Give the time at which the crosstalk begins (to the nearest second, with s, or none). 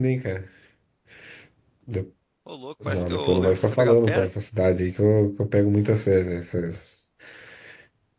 3 s